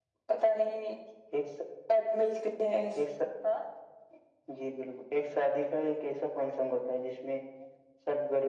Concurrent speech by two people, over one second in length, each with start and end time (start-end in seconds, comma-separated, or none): none